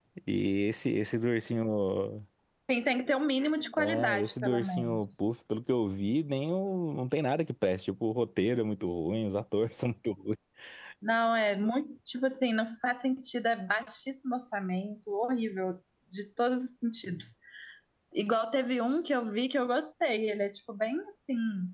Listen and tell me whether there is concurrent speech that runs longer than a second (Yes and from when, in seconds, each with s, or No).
Yes, from 3.8 s